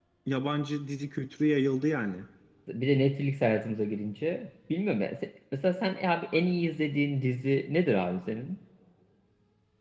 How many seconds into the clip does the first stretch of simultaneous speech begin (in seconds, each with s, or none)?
none